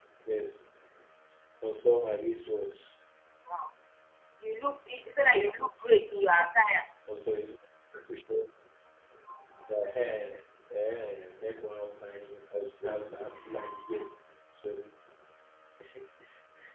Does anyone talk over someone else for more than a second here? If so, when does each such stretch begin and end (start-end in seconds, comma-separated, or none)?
none